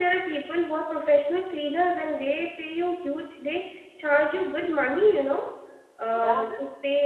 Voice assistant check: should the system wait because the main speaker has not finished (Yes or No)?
Yes